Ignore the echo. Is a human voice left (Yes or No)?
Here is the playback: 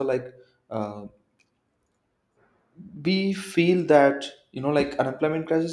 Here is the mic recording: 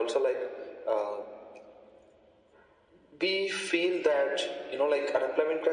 No